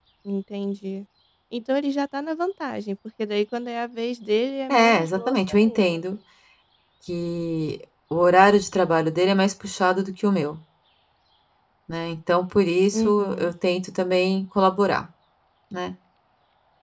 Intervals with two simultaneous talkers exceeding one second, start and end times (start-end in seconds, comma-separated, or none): 4.7-6.0